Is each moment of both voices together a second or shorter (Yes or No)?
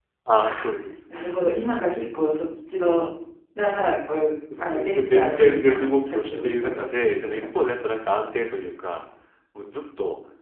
No